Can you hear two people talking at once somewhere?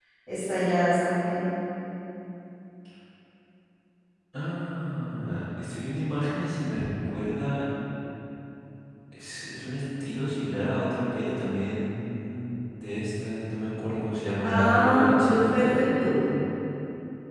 Yes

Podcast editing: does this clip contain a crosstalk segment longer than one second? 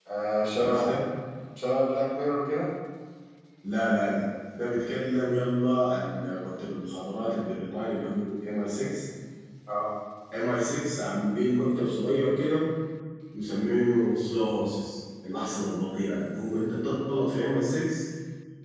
No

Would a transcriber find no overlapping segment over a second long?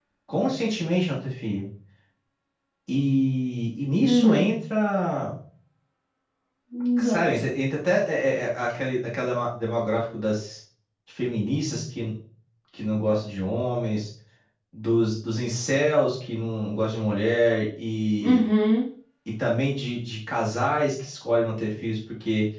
Yes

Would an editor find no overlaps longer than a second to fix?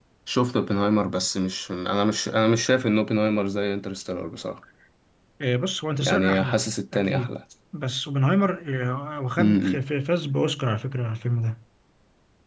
No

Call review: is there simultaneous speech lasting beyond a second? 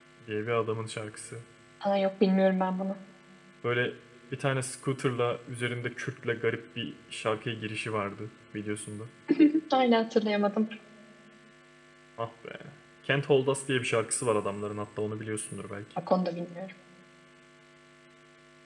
No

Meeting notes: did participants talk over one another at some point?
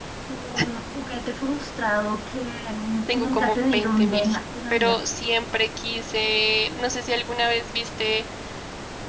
Yes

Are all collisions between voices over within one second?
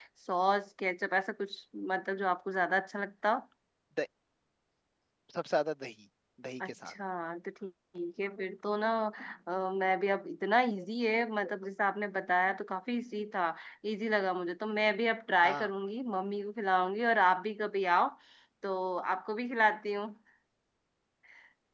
Yes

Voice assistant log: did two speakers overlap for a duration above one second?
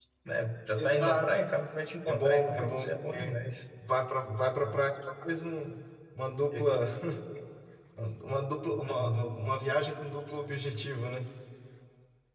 Yes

